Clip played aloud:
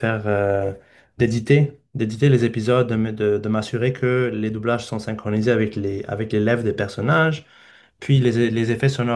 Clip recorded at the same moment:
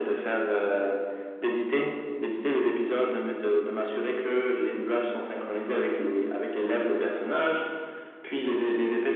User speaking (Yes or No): No